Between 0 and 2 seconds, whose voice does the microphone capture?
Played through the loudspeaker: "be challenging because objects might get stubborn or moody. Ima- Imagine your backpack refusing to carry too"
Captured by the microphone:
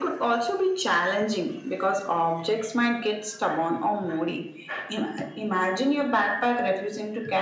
echo only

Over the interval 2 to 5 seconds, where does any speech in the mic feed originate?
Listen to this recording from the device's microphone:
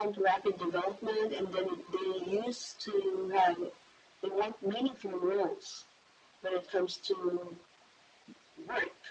echo only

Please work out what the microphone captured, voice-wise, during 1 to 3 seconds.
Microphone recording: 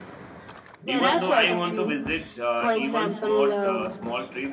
both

